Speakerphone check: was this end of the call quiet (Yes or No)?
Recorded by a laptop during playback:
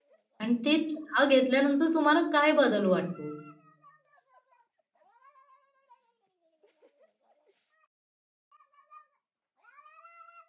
No